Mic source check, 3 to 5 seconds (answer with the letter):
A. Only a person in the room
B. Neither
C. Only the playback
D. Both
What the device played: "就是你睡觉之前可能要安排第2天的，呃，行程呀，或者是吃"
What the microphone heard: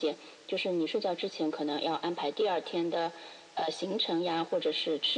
C